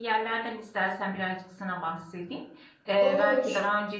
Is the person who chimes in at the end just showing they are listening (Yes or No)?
Yes